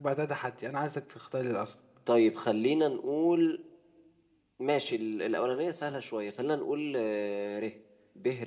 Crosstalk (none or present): none